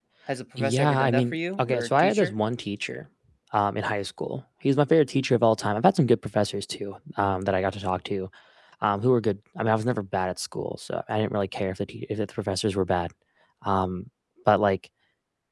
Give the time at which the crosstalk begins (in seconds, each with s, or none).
0.6 s